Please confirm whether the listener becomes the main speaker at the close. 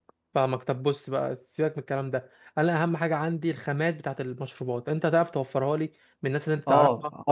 Yes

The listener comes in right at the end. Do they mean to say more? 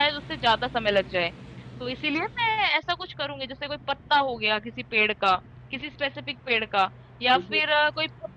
No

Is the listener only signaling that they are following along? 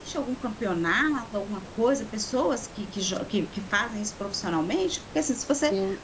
No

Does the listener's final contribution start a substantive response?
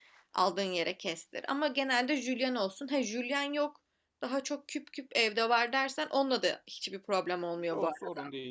Yes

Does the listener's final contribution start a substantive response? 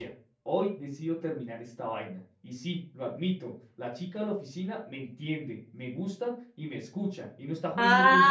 Yes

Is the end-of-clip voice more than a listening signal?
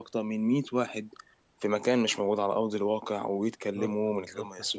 Yes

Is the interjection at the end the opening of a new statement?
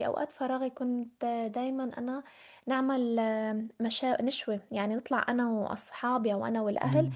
No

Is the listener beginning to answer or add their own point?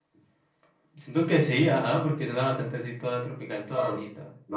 Yes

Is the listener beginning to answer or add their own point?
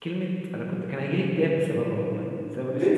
Yes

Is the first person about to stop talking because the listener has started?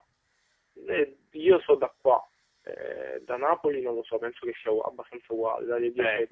Yes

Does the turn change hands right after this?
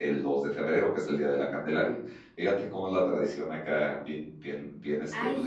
Yes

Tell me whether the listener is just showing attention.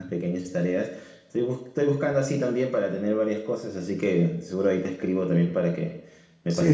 No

